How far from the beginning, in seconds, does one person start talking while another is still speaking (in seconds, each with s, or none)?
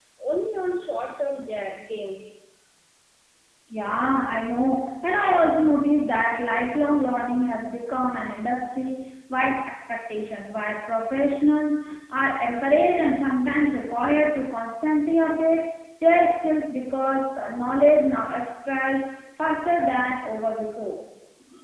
none